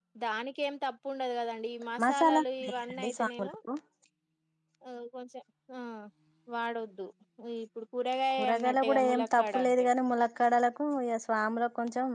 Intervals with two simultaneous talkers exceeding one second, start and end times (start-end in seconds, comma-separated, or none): 2.0-3.5, 8.3-9.8